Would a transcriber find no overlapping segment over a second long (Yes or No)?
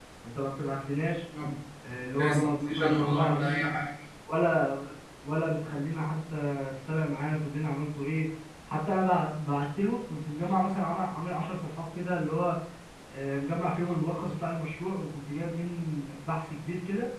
No